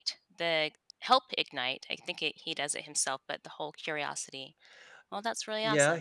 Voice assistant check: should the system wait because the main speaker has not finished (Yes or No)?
No